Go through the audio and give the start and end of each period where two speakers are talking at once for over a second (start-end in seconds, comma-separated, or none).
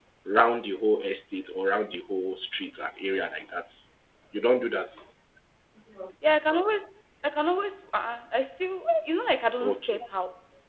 none